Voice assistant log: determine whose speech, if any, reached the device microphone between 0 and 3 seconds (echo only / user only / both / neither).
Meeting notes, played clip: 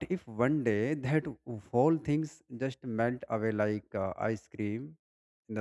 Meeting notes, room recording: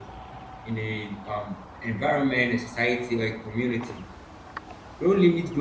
user only